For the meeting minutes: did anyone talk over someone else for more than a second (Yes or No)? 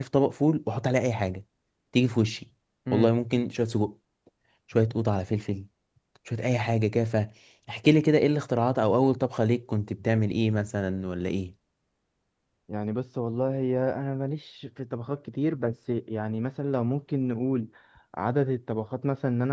No